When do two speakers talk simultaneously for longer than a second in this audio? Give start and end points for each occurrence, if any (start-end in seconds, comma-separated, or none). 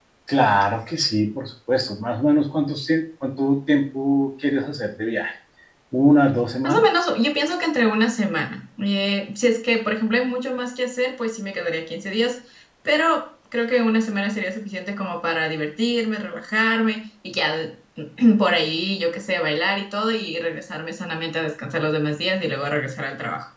none